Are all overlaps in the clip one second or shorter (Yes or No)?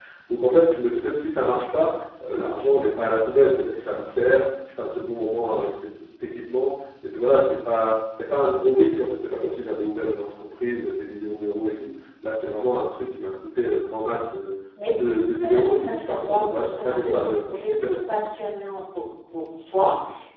No